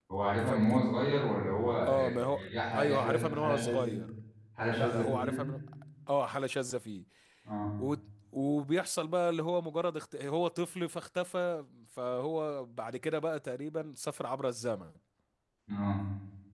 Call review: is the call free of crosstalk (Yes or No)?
No